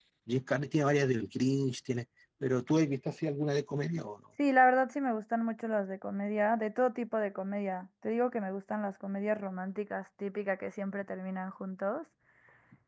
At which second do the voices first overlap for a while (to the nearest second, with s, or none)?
none